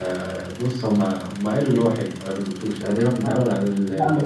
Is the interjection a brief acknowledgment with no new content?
No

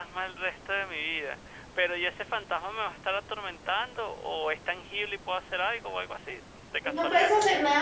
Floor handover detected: Yes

